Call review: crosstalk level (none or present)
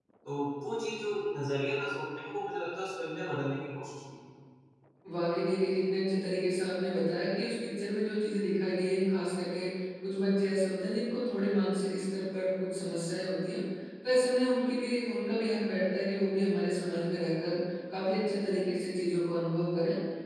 none